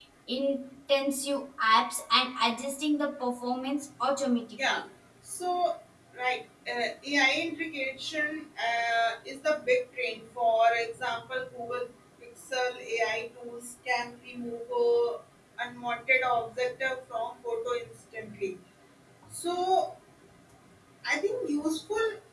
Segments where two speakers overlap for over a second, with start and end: none

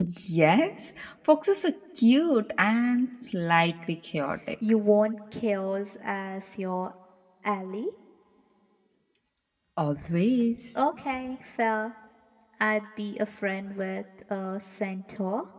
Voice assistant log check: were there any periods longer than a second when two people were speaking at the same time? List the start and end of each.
none

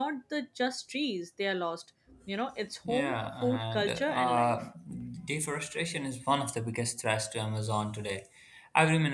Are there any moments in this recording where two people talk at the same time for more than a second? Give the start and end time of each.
2.9-4.6

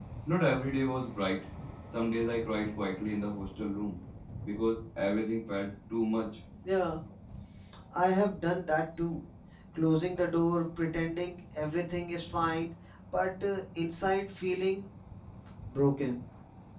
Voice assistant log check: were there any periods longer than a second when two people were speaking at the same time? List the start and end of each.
none

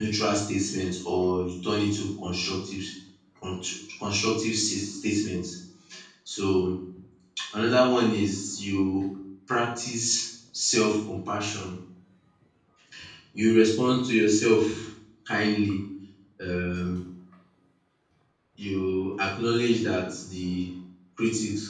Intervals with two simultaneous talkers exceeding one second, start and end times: none

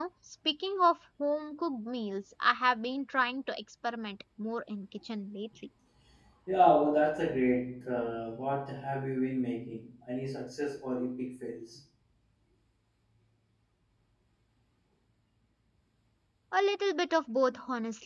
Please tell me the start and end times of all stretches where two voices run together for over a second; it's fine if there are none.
none

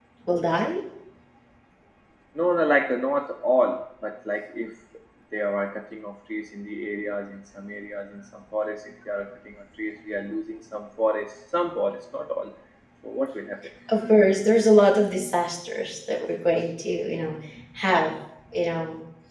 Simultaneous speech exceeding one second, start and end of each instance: none

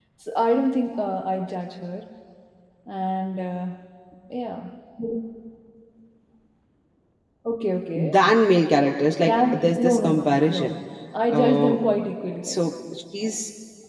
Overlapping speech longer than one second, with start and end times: 9.2-10.8

